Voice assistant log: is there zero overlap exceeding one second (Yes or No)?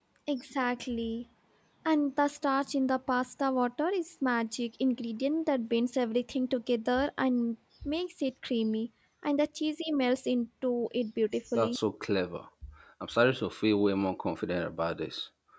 Yes